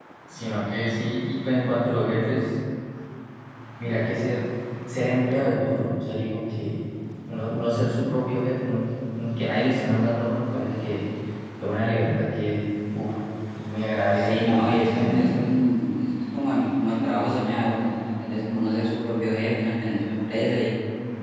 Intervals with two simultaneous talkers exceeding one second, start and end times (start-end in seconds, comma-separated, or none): 14.2-15.4